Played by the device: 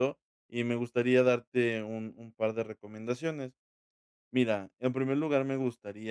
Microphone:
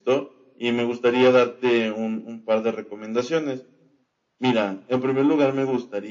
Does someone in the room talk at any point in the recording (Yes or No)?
No